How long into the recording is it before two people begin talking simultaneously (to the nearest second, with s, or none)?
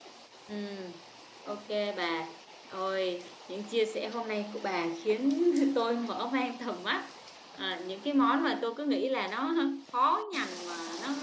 none